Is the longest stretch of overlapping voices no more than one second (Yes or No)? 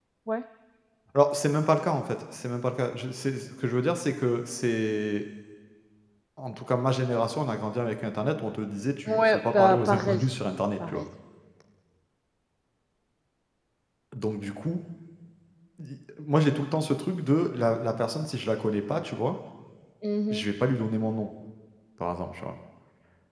No